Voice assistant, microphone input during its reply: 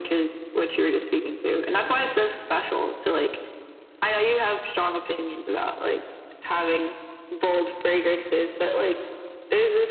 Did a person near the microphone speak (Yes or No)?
No